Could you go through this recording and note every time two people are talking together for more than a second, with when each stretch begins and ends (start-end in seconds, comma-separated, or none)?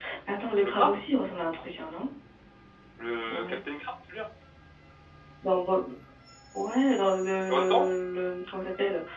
none